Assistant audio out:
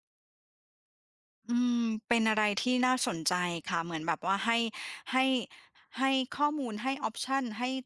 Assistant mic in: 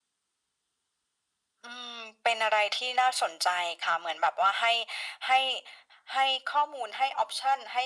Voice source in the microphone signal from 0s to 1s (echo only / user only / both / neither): neither